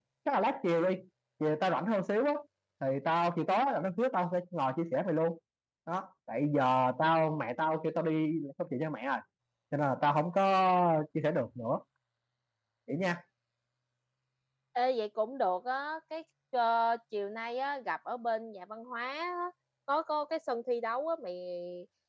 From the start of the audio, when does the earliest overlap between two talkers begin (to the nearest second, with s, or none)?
none